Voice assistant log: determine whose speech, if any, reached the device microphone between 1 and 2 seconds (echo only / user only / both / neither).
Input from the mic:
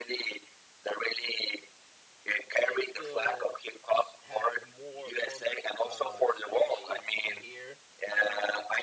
echo only